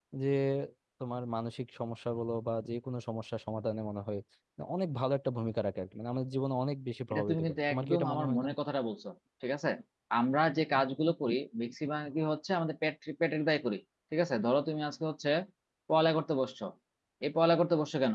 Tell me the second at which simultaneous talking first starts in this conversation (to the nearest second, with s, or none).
7 s